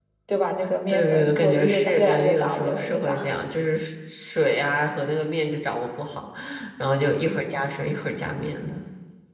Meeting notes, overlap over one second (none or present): present